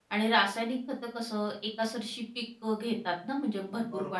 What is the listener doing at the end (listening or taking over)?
taking over